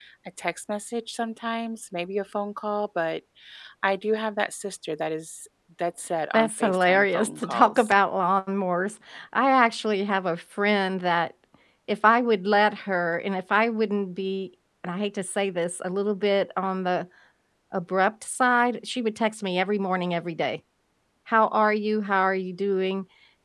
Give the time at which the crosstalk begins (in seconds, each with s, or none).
6.3 s